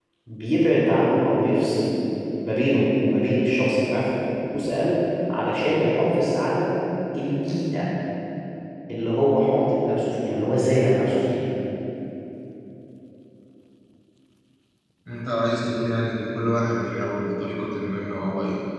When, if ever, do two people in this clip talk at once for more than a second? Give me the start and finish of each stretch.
none

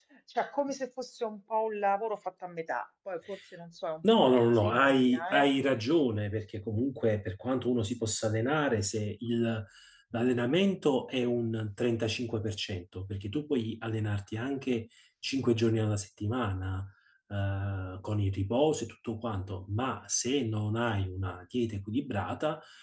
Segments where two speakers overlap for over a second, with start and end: 4.1-5.5

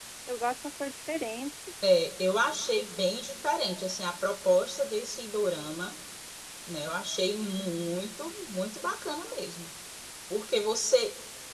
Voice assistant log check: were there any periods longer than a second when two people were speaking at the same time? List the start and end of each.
none

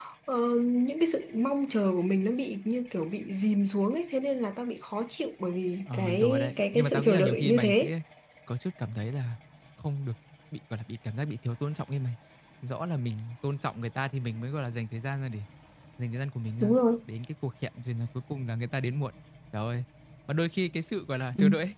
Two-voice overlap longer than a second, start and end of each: 5.9-7.9

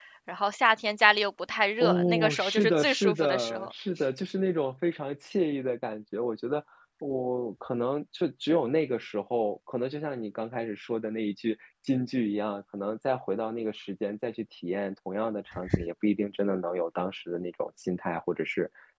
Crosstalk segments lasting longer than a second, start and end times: 1.8-3.7

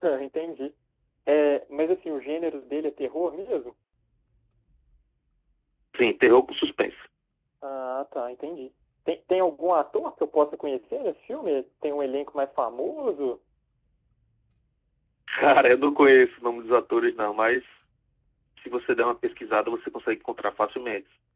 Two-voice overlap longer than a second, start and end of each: none

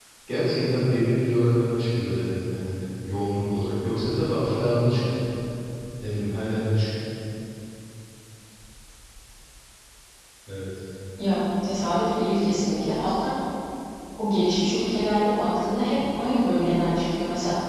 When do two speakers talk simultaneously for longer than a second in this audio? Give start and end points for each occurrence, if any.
none

